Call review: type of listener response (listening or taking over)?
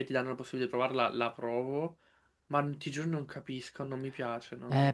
taking over